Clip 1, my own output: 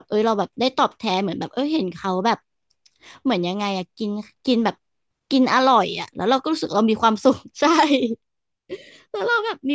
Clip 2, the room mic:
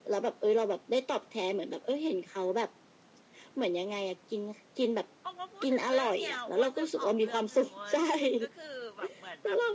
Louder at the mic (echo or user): echo